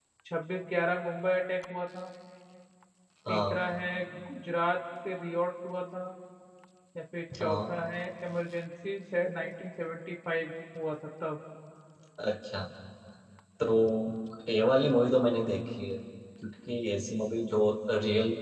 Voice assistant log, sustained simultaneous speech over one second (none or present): none